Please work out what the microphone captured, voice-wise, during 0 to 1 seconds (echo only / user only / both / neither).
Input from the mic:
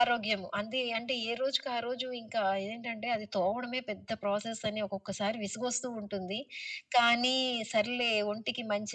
echo only